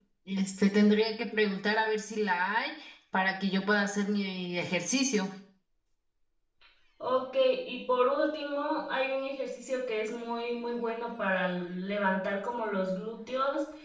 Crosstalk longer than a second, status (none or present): none